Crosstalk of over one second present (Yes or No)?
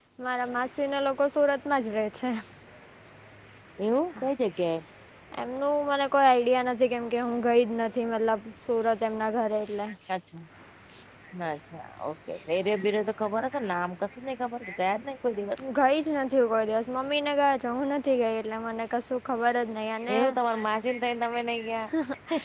No